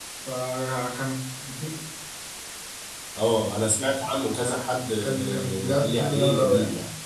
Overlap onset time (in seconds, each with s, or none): 5.0 s